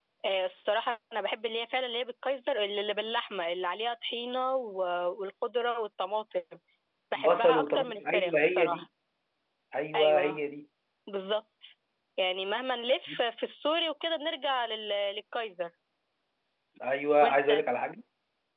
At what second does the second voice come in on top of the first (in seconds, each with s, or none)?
7.1 s